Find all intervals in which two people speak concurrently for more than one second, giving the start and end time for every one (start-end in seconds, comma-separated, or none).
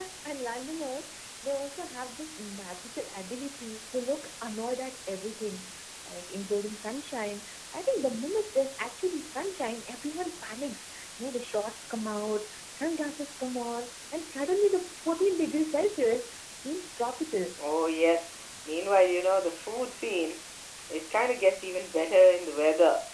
none